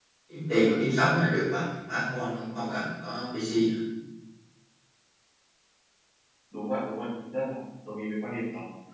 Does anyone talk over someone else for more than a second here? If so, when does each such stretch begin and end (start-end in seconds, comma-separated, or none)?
none